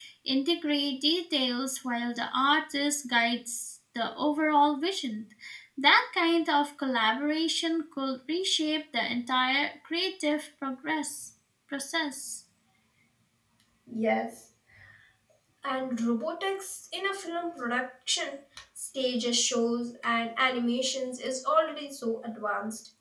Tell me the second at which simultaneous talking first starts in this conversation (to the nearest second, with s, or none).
none